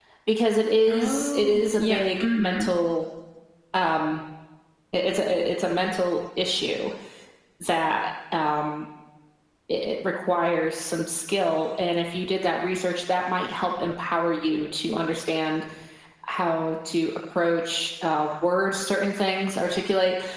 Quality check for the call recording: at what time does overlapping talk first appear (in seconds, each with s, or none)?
0.9 s